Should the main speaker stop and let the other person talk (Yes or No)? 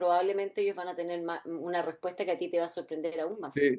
Yes